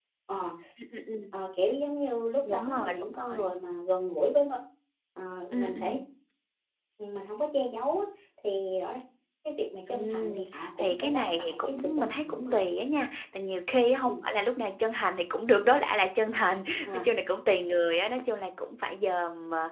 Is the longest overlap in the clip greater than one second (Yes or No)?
Yes